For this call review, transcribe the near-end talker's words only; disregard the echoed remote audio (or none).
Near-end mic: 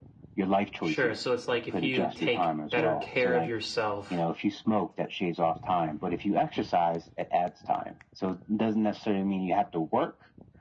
Sure. So it's like if you take better care of yourself,